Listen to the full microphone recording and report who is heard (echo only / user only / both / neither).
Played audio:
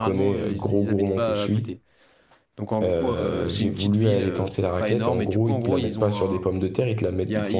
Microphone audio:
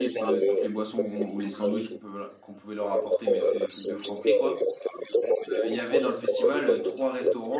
both